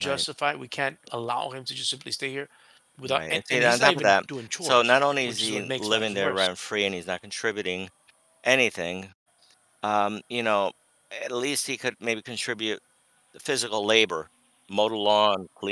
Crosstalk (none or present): present